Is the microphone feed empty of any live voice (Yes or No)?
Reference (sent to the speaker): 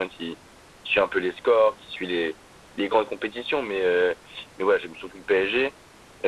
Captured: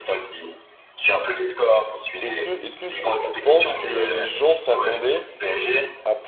No